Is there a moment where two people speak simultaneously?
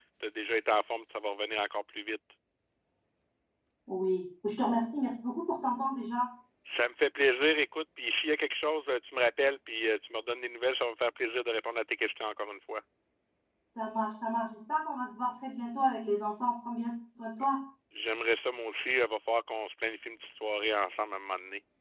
No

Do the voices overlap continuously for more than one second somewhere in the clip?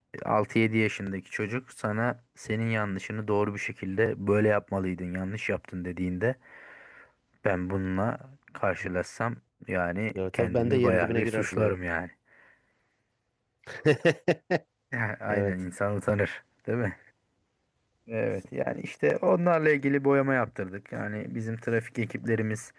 Yes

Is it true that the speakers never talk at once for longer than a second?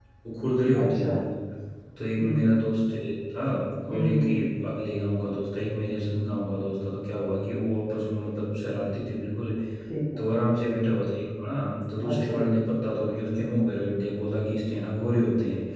Yes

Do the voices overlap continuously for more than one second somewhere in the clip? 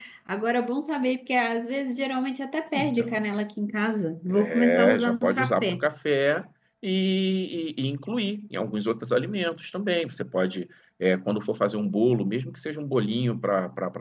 Yes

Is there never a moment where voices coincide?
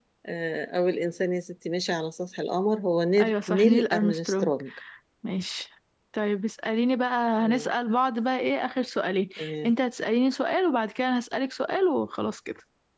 No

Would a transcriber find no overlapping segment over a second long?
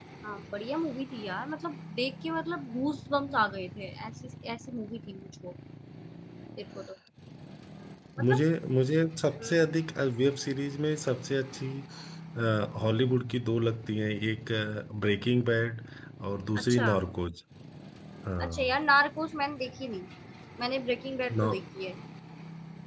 Yes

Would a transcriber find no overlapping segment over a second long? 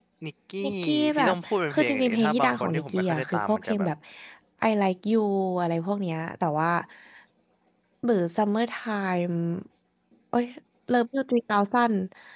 No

